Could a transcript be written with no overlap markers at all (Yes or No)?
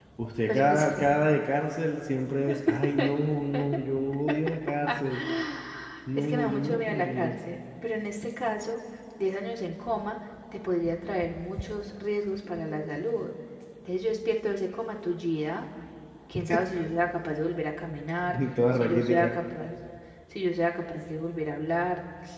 No